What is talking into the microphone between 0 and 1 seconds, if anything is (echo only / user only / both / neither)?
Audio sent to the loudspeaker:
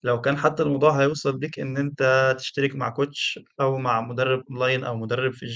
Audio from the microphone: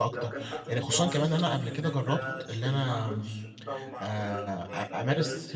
both